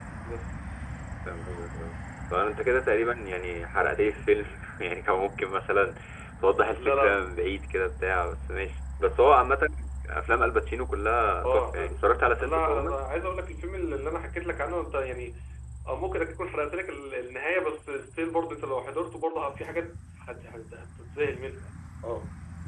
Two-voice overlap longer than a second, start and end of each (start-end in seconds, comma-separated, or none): 11.4-13.0